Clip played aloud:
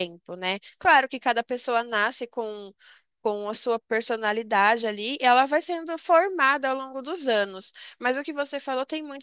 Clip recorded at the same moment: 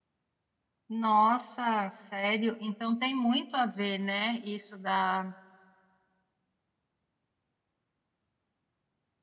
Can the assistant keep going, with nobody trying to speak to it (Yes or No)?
No